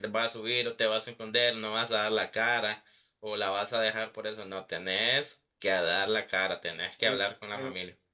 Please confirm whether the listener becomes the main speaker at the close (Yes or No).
Yes